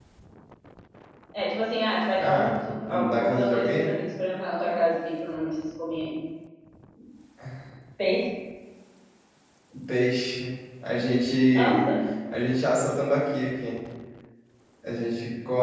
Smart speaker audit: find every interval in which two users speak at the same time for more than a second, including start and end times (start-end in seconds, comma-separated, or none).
2.2-4.0